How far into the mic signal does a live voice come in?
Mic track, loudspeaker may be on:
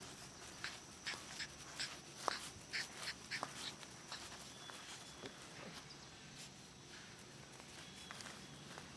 none

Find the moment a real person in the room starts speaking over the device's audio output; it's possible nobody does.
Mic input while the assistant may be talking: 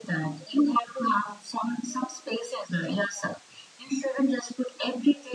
none

